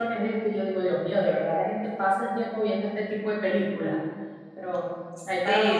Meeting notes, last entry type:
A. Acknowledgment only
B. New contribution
B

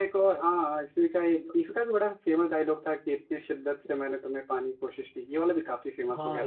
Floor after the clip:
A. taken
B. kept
A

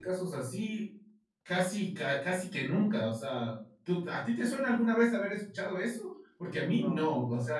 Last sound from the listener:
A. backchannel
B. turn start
A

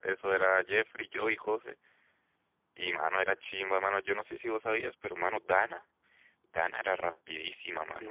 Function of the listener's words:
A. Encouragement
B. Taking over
B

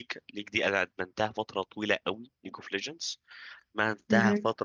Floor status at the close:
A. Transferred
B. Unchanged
B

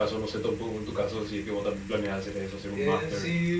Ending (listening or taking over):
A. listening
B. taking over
B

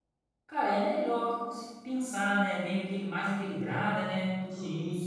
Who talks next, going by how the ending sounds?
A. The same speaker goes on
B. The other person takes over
B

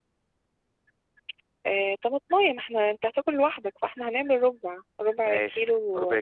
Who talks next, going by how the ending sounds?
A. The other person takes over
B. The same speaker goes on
A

